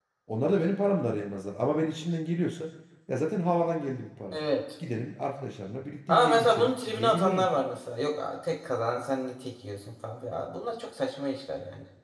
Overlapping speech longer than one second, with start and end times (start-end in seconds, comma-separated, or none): 6.1-7.5